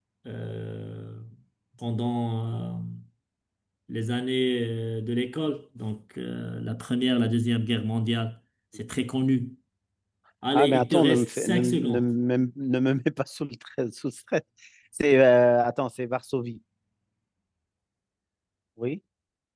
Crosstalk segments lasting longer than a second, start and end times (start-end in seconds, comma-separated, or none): 10.5-12.0